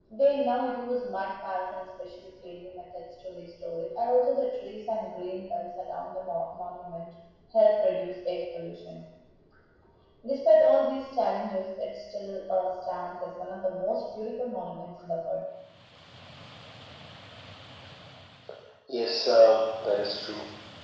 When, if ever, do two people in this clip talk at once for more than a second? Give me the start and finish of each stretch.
none

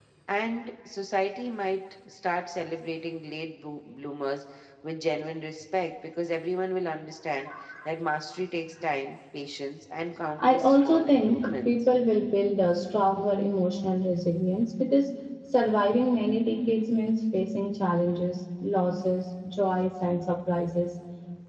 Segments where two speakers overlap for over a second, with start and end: 10.4-11.9

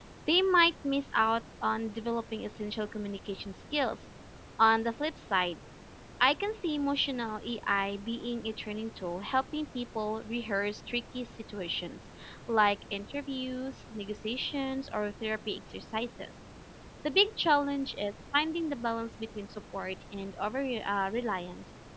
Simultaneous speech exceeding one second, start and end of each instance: none

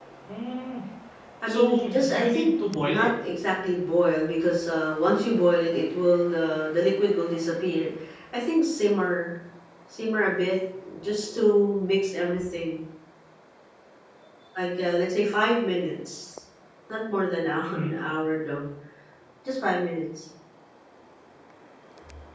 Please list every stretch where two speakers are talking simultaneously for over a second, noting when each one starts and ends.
1.5-3.1

